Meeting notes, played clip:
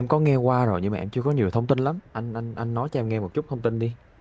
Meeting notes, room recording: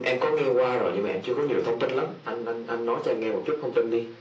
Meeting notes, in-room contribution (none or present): none